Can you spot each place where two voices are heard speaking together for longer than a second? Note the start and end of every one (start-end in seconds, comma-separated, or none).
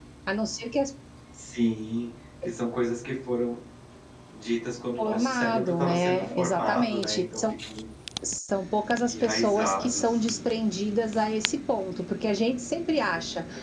5.0-7.4, 9.1-10.4